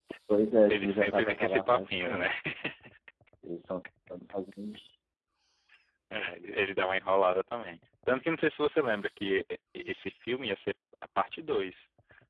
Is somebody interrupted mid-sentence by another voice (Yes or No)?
Yes